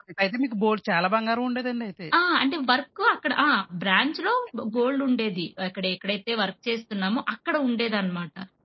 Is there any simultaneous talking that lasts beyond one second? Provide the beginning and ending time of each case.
none

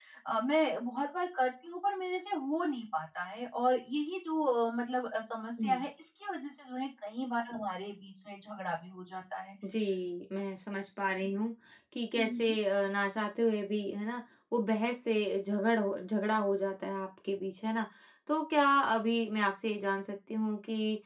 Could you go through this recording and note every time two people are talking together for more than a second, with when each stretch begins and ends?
none

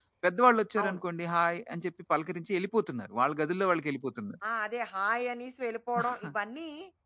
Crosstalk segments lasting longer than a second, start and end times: none

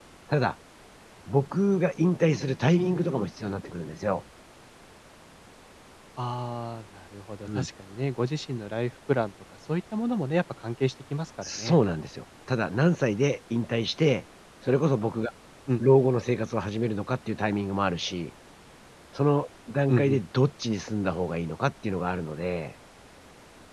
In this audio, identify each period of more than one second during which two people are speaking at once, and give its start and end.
none

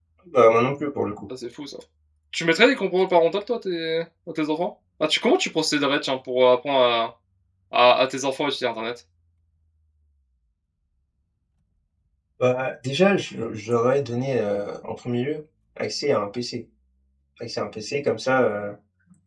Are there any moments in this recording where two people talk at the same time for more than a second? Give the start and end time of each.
none

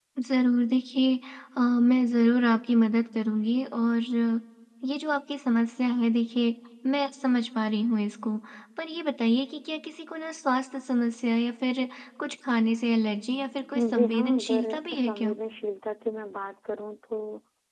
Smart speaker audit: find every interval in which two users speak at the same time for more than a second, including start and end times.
13.9-15.3

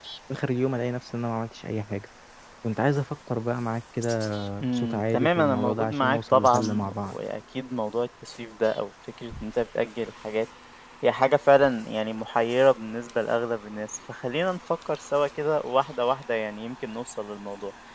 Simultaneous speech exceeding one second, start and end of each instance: 4.6-7.2

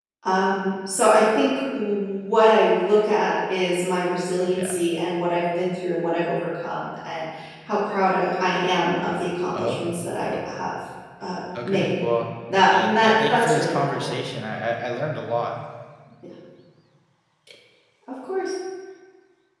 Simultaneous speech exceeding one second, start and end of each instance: 12.7-14.1

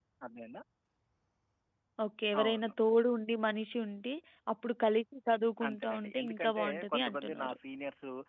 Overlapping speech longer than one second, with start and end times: 5.7-7.6

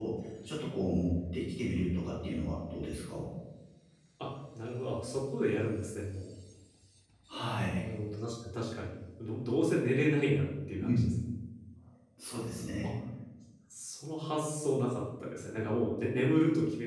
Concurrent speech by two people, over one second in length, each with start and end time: none

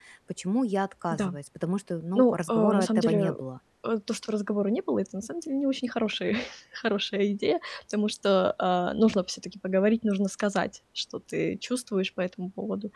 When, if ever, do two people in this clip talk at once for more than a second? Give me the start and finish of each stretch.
2.2-3.4

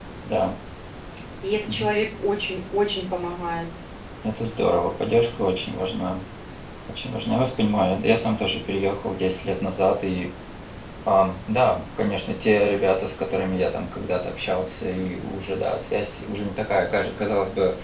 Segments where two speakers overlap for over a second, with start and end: none

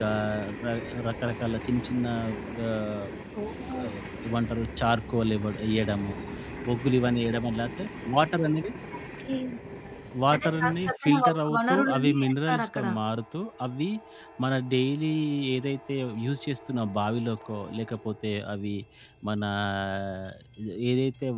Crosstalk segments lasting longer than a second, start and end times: 10.3-12.8

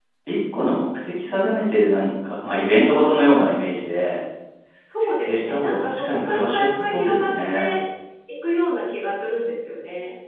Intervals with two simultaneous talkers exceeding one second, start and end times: 5.0-7.7

